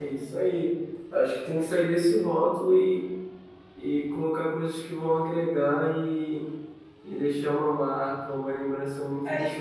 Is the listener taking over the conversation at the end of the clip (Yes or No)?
Yes